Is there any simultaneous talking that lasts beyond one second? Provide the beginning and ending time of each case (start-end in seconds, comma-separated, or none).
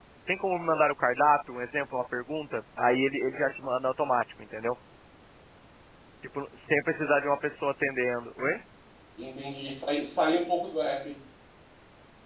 none